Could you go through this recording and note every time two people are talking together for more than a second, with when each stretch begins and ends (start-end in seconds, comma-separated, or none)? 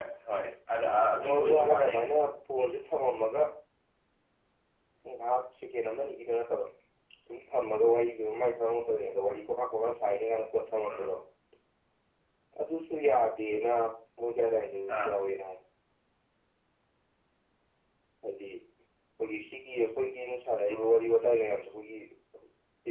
0.8-2.3